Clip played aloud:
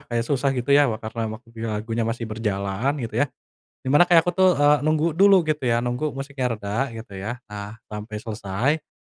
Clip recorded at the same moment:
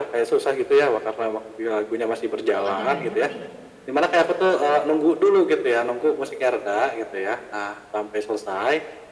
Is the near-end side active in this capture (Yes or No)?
Yes